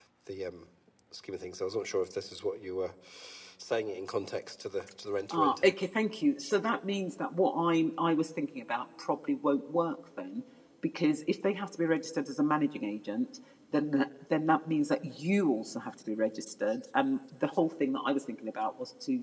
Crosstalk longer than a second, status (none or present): none